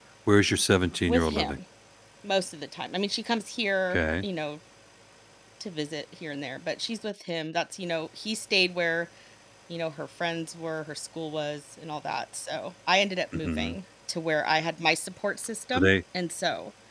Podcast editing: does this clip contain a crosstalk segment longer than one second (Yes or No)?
No